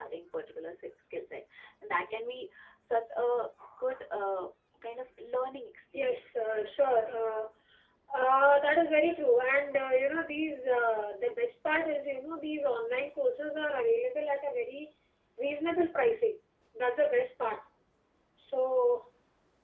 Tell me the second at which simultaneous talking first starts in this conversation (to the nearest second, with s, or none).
6 s